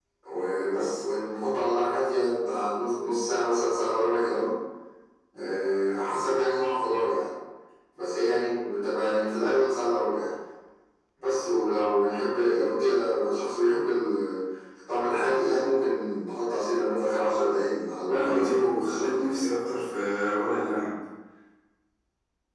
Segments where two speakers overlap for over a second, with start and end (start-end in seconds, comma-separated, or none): 18.1-19.4